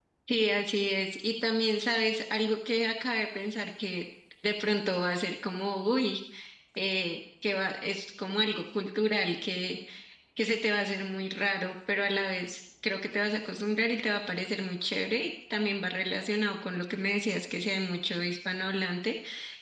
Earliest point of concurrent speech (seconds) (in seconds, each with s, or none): none